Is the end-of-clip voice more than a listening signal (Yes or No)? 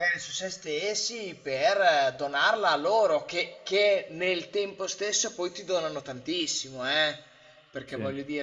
No